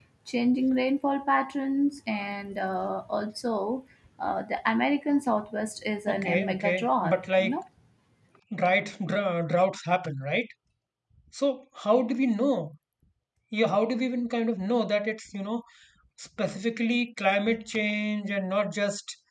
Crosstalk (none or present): present